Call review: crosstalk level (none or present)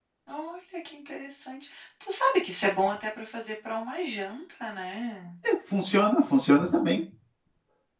none